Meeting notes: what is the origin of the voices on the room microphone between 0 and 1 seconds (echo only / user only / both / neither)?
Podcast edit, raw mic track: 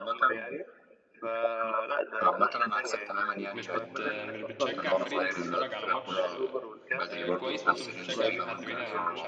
echo only